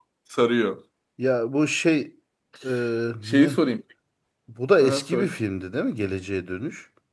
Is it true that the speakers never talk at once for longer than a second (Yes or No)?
Yes